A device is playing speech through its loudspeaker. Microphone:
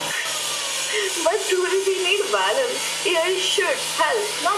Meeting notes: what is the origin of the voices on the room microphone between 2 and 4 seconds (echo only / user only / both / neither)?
echo only